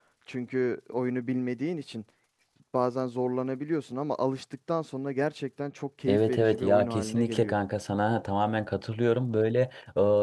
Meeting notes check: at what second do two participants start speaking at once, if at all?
6.1 s

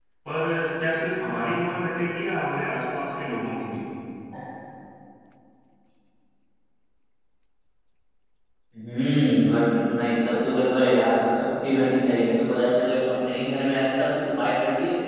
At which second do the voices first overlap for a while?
none

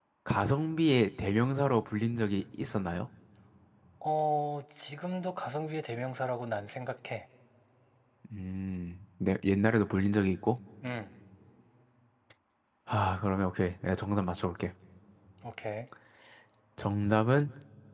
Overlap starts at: none

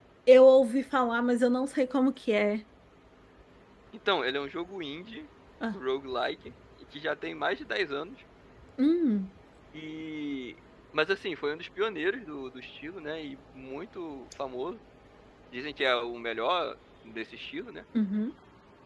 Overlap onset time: none

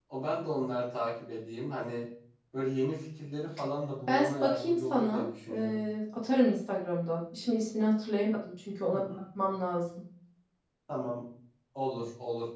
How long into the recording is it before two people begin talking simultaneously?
4.1 s

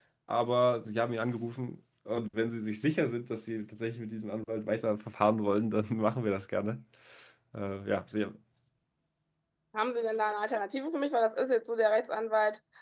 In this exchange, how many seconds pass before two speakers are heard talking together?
none

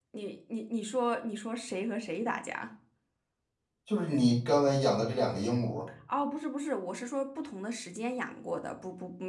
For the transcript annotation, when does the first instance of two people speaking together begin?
none

